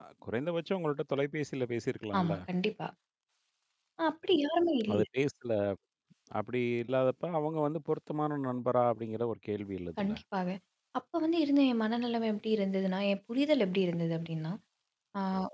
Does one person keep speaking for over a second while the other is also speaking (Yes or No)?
No